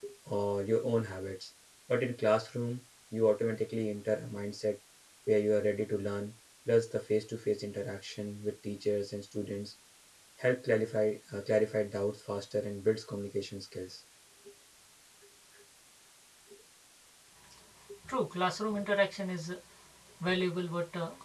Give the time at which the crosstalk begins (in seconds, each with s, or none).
none